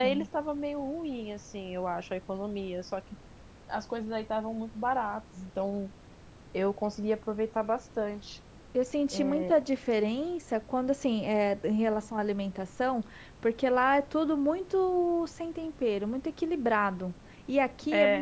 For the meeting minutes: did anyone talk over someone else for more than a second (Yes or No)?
No